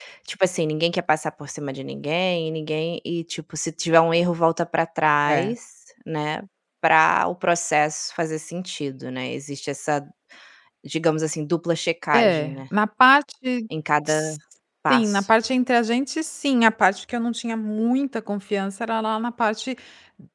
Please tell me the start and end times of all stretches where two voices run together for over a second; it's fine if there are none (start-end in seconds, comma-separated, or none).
none